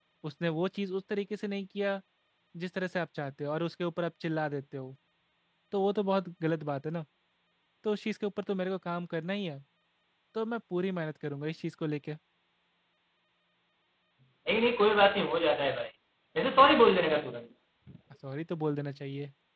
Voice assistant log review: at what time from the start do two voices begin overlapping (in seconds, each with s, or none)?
none